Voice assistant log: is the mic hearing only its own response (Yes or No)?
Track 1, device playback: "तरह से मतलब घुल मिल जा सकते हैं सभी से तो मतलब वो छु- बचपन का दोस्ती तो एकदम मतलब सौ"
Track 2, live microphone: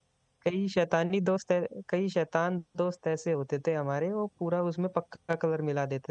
No